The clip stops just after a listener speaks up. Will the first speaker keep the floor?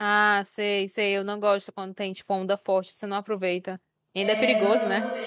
No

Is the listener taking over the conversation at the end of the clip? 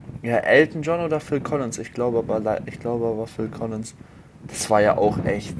No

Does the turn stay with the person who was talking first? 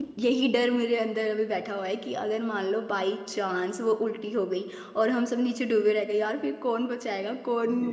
No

